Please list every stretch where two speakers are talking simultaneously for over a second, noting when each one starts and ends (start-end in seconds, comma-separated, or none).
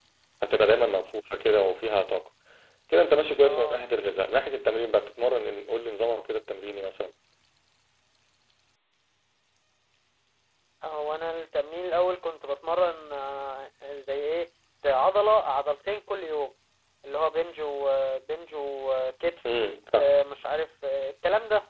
none